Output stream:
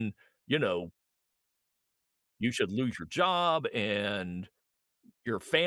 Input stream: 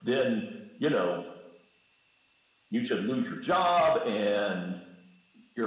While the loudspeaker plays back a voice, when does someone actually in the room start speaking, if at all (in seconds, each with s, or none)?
none